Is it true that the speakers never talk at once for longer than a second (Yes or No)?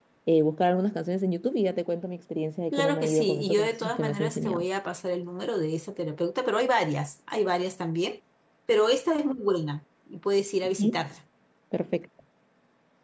No